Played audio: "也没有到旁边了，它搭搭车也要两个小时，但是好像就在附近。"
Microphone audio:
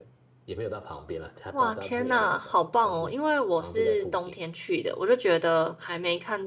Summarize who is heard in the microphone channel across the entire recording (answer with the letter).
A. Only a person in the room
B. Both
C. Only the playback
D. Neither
B